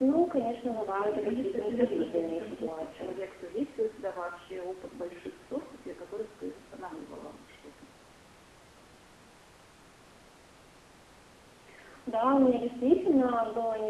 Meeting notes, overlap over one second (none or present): present